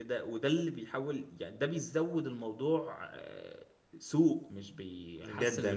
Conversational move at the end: taking over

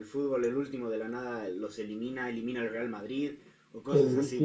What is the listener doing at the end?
taking over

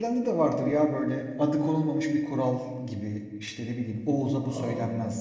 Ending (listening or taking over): listening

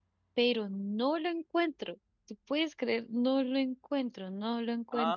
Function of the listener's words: taking over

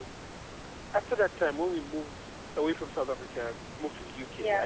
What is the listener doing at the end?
listening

